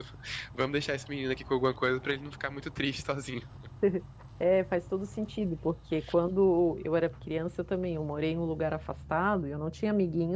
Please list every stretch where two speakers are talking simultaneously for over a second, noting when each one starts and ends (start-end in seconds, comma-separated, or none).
none